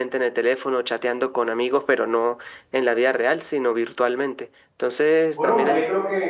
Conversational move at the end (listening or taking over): taking over